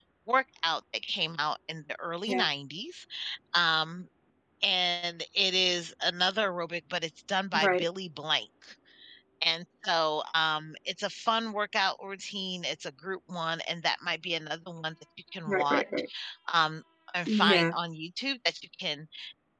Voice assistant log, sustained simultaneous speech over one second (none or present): none